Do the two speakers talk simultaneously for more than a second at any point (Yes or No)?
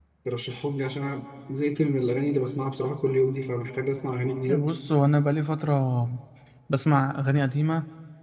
No